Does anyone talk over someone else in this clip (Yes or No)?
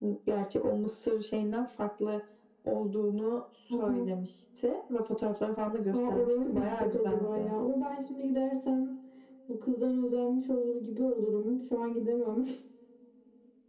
Yes